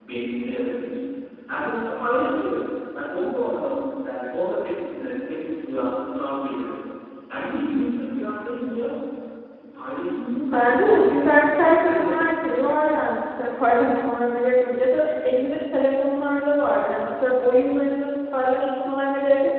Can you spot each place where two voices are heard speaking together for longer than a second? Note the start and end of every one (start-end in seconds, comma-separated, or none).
10.5-12.2